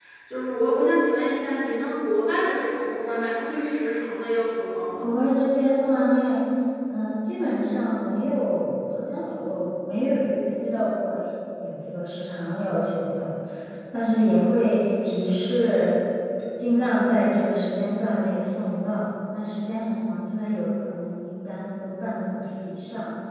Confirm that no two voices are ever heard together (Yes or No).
Yes